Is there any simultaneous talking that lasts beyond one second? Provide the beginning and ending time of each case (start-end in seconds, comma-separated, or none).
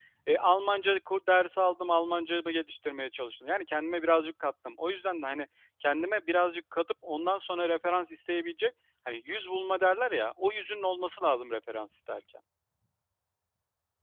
none